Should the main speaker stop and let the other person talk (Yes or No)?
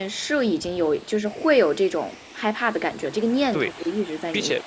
Yes